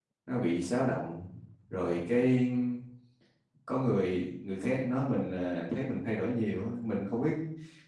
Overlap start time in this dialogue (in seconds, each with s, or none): none